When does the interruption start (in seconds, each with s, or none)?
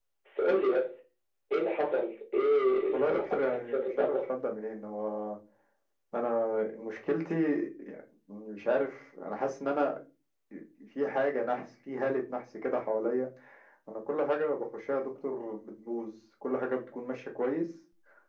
2.9 s